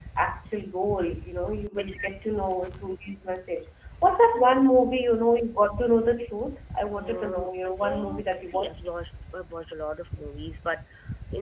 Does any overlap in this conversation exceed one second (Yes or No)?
Yes